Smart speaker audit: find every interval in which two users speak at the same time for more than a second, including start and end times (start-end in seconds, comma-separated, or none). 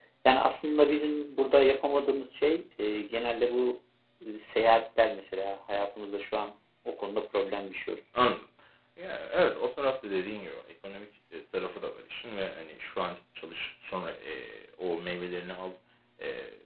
none